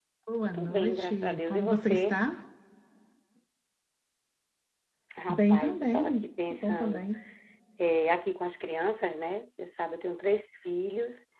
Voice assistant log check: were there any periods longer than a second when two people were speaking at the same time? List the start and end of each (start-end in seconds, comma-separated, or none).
0.5-2.2, 5.3-7.0